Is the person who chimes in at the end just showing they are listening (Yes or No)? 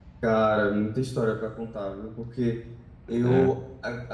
Yes